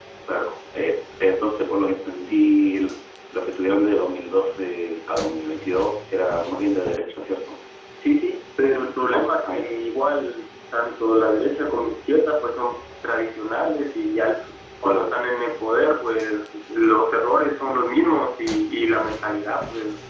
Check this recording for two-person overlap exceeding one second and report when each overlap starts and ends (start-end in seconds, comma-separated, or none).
none